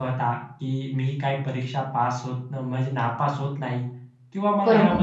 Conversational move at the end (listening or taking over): listening